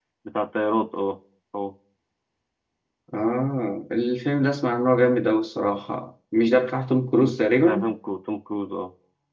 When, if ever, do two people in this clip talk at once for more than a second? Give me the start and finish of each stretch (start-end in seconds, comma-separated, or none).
none